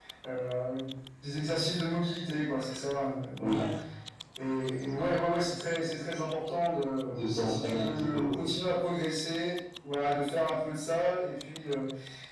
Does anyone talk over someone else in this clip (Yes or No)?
Yes